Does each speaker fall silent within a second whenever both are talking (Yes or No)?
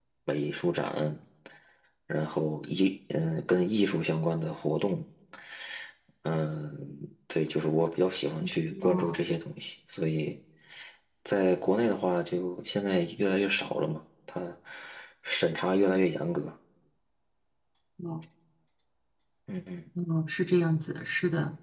Yes